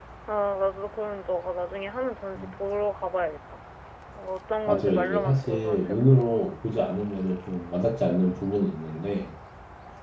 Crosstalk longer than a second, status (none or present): present